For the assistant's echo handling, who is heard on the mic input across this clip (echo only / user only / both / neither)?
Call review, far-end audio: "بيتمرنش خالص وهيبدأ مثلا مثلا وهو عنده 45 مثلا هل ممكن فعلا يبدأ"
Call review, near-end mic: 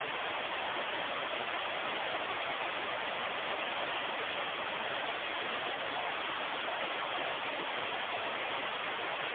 neither